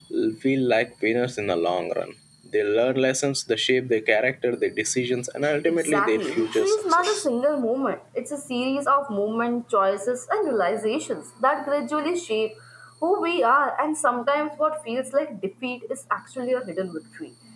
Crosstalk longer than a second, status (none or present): present